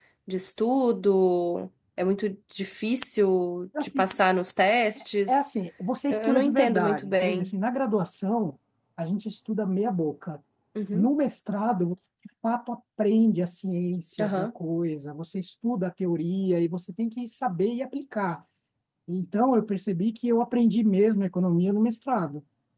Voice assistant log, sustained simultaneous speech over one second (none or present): present